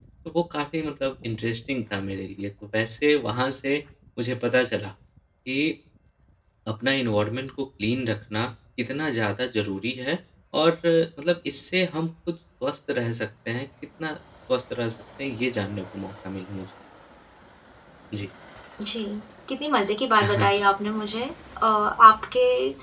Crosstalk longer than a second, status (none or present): none